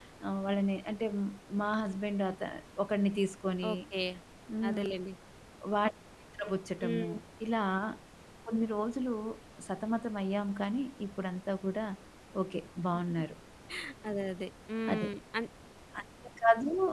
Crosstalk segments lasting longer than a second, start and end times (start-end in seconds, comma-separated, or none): none